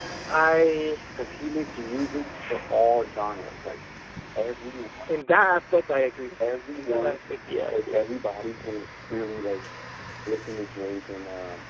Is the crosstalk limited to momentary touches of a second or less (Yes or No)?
No